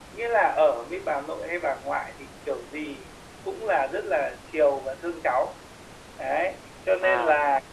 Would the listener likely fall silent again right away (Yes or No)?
Yes